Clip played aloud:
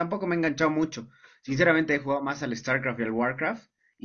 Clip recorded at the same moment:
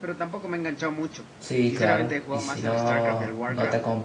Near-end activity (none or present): present